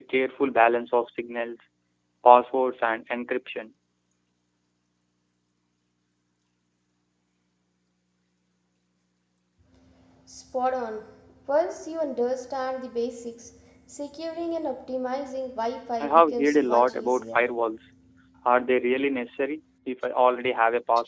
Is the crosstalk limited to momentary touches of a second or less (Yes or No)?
No